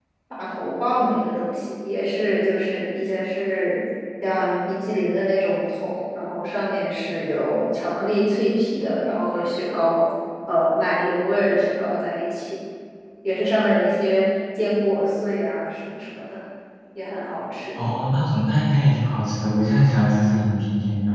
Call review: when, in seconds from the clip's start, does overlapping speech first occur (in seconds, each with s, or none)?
none